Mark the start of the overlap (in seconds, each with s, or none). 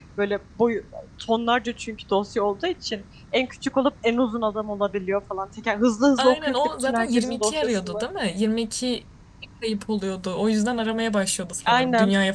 6.2 s